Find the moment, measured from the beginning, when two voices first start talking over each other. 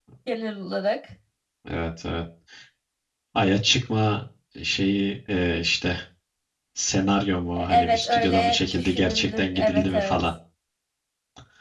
8 s

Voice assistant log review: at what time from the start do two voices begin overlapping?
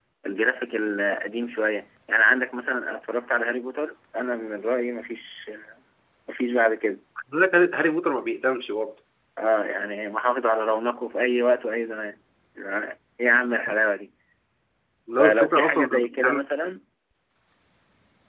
15 s

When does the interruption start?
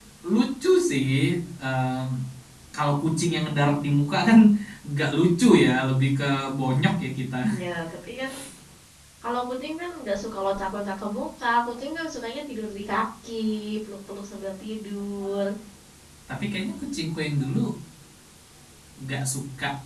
none

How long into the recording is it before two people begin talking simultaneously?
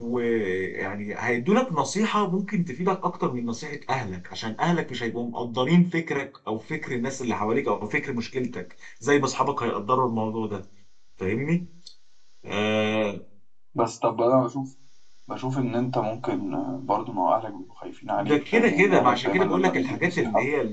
18 s

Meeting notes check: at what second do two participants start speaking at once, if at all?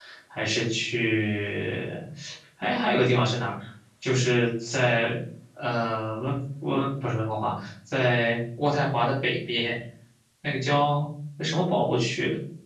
none

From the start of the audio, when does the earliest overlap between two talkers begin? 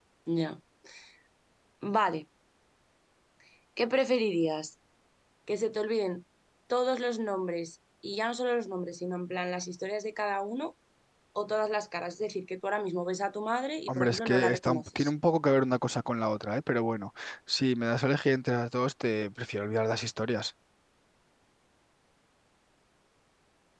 14 s

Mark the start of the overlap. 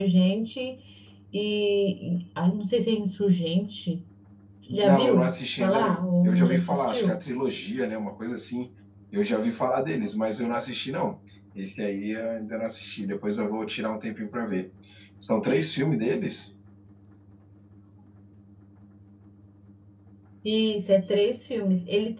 5 s

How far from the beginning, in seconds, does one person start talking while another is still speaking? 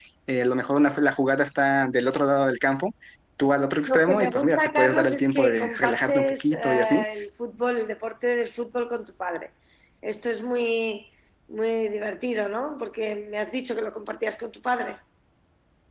4 s

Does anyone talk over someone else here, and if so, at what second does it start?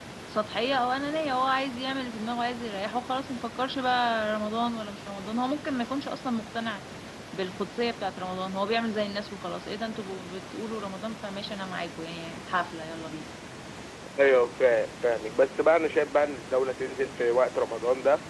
none

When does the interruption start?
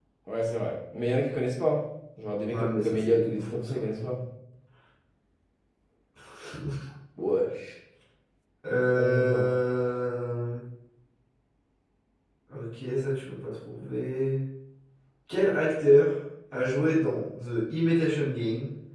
3 s

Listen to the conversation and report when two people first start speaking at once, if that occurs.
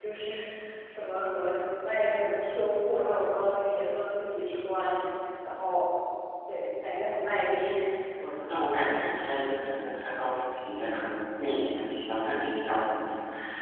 none

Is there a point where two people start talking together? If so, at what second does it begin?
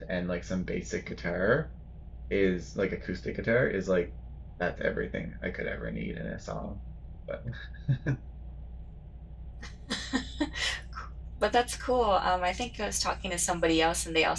none

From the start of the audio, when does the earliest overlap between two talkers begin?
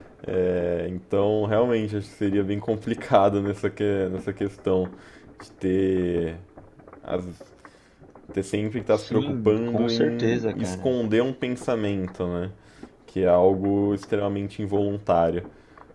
9 s

